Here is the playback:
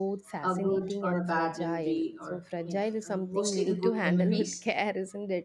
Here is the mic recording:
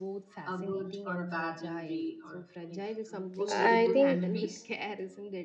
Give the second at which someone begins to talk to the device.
3.5 s

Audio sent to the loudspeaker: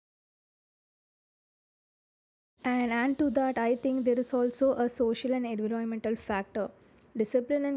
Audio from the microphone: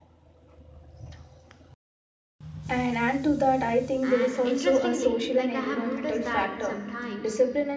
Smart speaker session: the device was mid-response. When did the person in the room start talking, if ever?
4.0 s

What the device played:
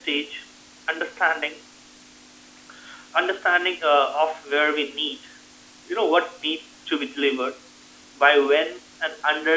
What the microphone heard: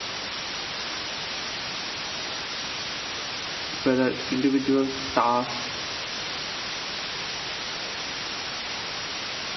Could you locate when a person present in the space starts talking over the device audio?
3.8 s

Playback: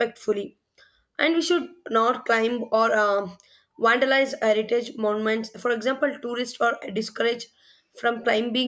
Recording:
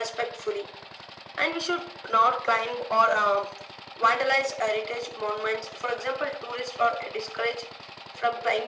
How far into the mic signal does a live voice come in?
none

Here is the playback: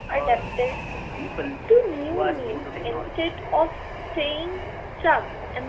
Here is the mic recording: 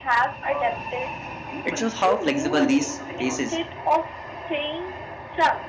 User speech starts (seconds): 1.6 s

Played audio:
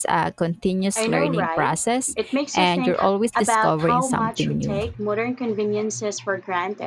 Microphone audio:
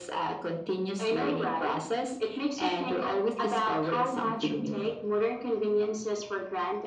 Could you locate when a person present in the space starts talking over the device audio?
none

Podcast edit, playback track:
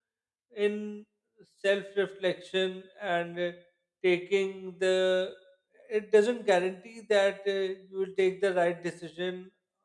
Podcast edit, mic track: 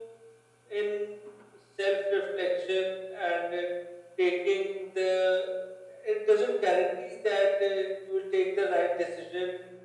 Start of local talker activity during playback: none

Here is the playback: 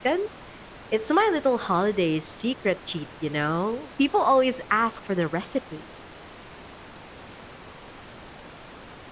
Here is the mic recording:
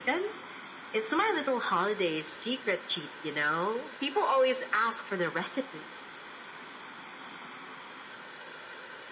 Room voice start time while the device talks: none

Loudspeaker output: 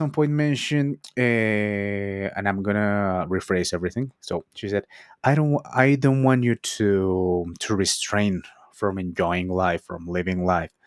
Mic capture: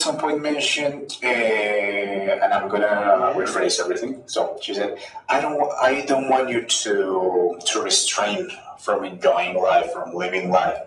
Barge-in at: 3.1 s

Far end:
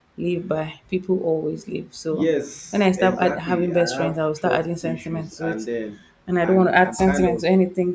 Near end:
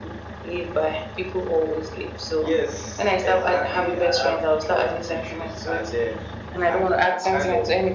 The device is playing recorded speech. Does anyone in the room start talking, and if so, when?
none

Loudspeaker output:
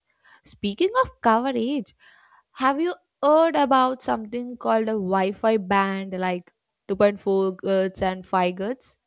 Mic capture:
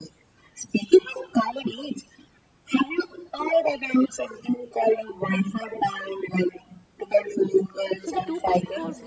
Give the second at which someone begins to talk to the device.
8.0 s

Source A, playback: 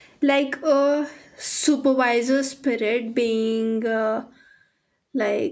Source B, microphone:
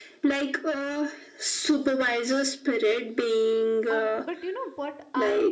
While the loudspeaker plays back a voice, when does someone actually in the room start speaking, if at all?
3.9 s

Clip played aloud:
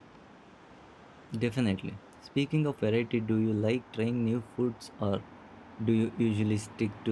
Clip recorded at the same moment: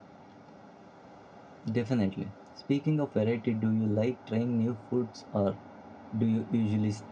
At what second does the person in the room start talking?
none

